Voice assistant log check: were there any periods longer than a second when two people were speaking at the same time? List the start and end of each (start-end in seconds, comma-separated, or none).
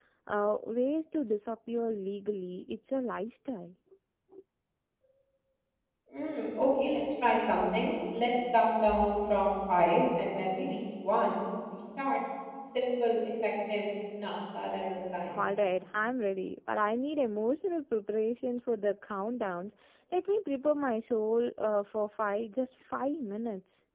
none